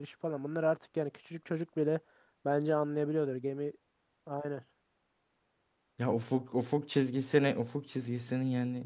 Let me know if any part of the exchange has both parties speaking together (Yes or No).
No